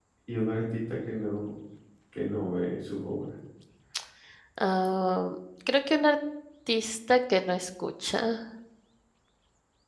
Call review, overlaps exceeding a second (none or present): none